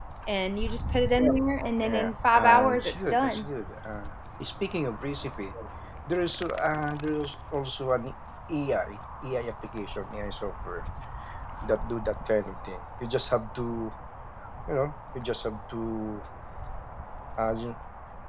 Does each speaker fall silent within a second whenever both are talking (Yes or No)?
No